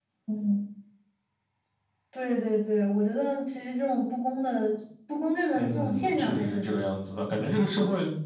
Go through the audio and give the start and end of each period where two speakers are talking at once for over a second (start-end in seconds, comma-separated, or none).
5.6-6.9